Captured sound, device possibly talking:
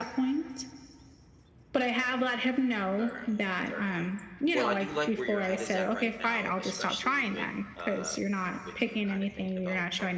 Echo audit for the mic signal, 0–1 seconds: echo only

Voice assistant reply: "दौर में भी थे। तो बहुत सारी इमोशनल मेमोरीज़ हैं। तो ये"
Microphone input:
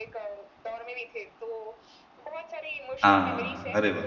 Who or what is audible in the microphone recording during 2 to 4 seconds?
both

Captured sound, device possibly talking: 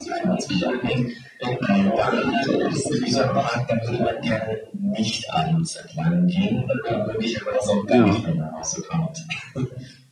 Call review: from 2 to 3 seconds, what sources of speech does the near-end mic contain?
echo only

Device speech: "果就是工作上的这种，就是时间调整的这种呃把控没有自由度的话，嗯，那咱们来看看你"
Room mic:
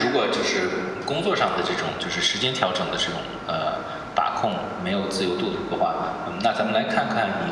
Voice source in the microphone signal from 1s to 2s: echo only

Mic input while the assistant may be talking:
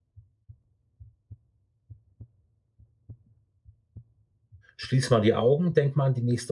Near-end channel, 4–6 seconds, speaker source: user only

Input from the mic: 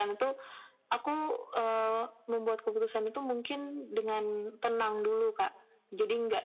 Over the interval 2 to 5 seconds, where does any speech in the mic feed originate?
echo only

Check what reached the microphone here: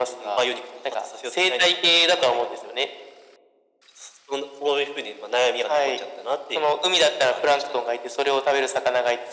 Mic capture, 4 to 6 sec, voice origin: echo only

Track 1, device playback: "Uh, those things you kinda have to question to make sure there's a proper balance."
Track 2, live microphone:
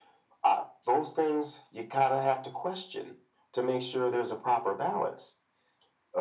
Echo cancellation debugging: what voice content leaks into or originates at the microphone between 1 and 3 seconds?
echo only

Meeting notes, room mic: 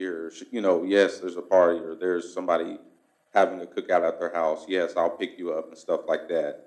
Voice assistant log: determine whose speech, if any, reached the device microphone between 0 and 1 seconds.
echo only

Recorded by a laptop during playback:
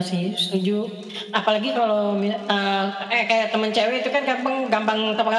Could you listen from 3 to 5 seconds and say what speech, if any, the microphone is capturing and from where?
echo only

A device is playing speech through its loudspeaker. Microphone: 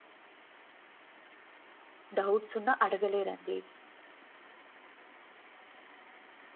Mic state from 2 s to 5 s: user only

